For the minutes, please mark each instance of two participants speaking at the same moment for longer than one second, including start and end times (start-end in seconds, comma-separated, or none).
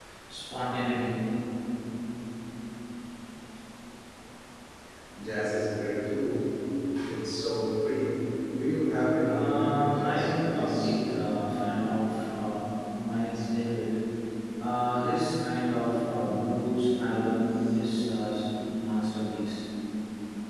9.2-11.0